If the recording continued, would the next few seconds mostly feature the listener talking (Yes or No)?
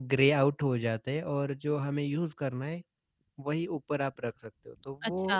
Yes